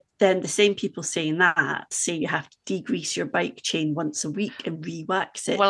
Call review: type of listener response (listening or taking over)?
taking over